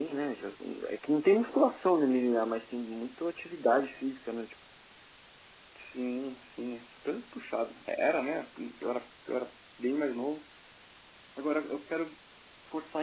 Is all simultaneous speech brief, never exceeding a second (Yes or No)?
Yes